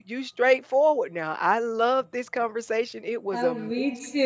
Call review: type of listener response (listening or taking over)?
taking over